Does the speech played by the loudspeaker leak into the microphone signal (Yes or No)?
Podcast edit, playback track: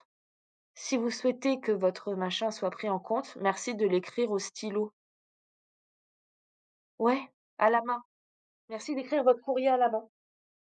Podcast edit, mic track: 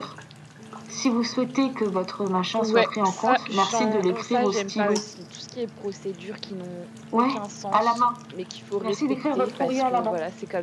Yes